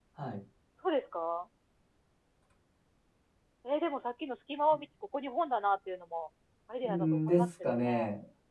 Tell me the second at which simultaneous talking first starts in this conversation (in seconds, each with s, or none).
6.8 s